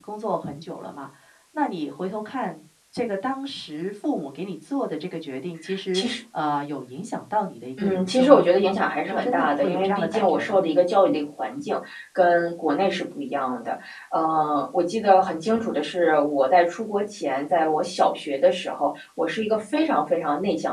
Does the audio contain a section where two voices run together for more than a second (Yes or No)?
Yes